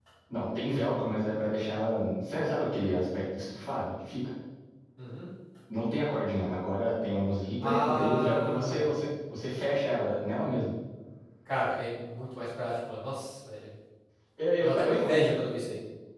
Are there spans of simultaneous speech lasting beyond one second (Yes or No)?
Yes